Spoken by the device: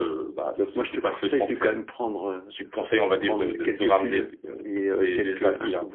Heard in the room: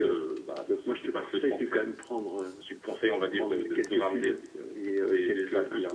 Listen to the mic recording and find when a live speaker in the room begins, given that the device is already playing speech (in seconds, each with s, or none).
none